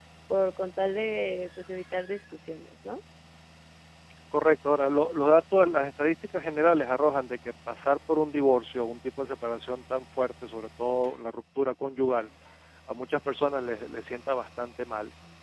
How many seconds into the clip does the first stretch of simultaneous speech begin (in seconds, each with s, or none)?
none